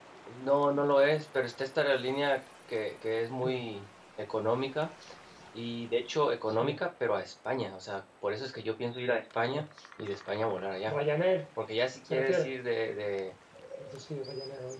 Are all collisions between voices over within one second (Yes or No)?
Yes